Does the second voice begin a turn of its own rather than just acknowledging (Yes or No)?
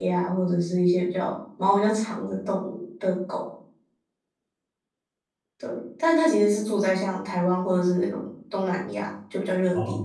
Yes